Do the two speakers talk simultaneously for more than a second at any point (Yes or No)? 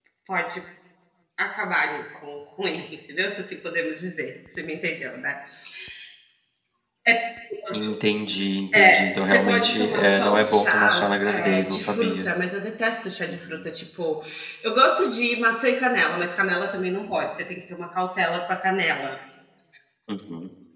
Yes